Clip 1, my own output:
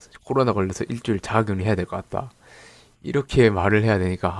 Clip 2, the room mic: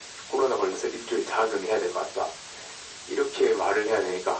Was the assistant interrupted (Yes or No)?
No